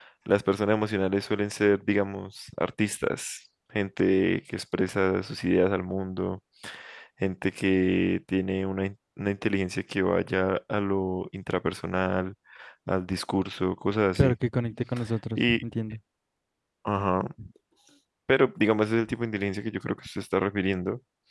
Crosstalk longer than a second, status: none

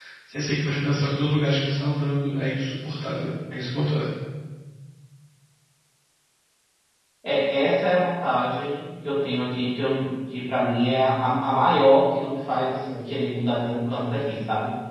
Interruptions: none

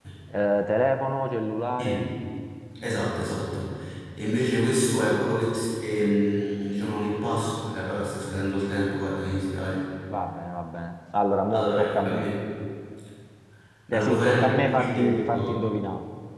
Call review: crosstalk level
present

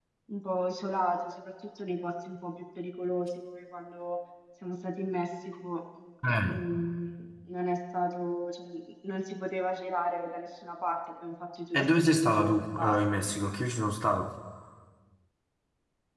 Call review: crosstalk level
present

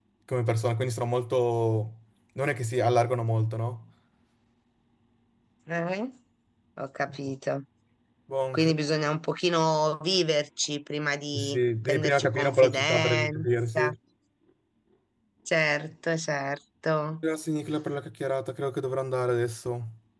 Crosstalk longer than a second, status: present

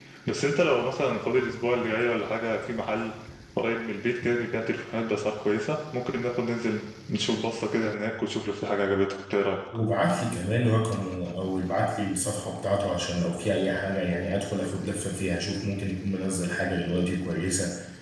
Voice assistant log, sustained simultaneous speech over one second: none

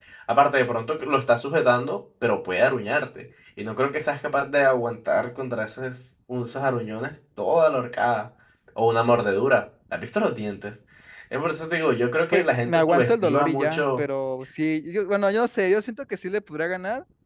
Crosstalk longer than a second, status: present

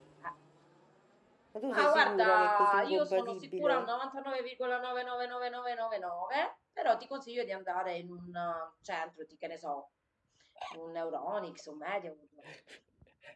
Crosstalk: present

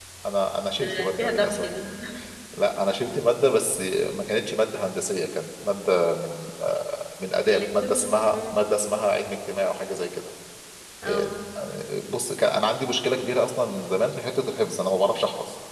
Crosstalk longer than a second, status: present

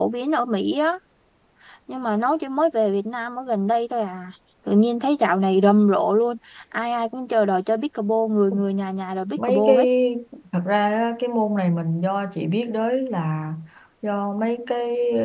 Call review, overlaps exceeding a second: none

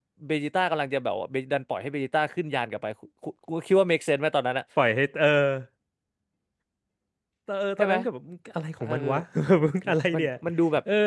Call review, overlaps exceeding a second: none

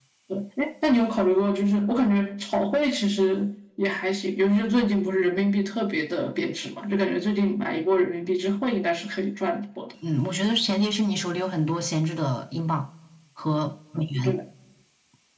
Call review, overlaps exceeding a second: none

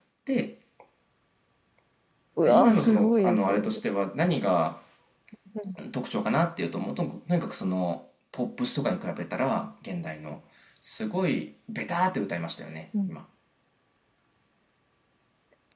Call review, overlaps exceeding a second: present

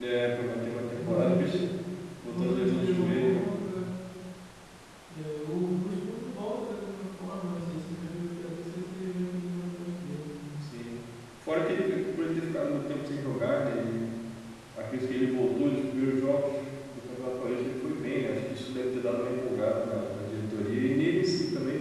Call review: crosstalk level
present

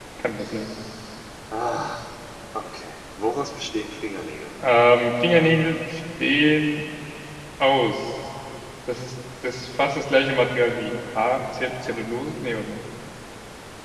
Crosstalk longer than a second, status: none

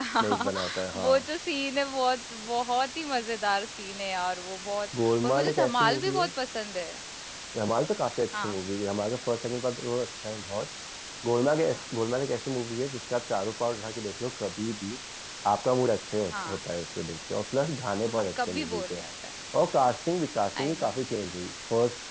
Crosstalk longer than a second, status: present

